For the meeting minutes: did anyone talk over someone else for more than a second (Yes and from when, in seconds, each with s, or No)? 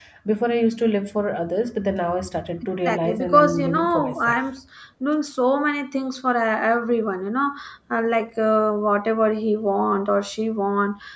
Yes, from 2.9 s